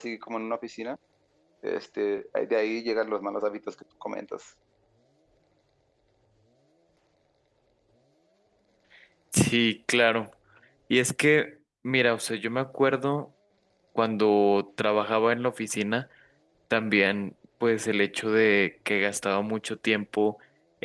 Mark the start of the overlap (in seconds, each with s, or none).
none